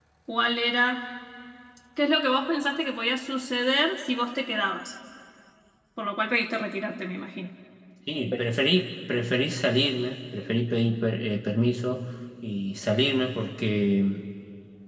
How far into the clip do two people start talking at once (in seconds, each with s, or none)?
none